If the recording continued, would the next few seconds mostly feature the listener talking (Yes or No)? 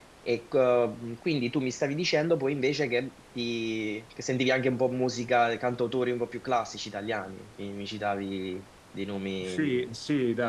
Yes